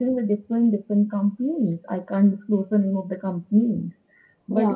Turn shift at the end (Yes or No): No